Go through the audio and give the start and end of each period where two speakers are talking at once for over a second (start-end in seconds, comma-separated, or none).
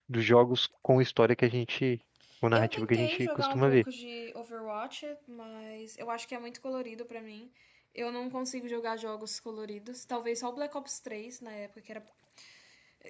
2.5-3.8